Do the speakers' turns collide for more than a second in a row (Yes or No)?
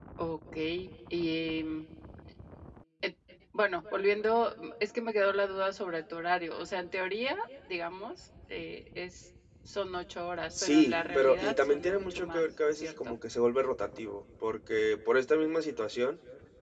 Yes